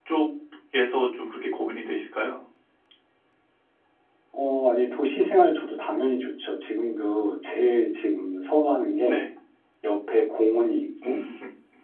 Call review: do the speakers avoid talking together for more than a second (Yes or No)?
Yes